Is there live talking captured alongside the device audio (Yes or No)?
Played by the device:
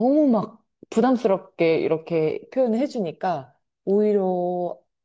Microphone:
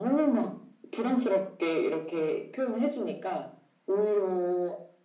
No